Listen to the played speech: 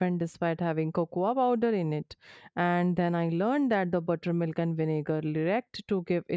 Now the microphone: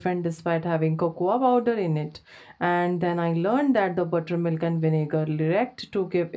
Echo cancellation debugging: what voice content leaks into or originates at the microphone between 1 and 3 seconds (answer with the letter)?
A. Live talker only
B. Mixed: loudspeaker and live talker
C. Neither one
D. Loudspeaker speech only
D